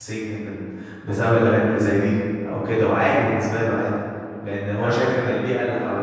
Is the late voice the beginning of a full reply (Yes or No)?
No